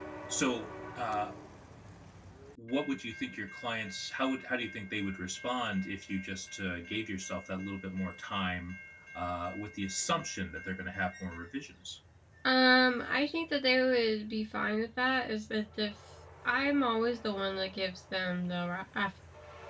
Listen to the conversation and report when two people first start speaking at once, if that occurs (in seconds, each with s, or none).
none